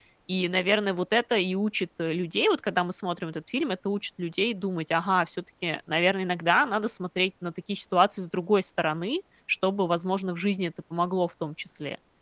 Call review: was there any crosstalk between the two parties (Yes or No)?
No